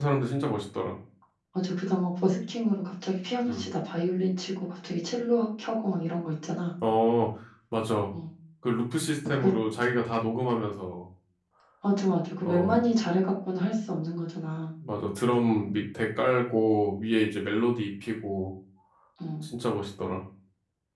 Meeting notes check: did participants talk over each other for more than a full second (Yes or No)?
No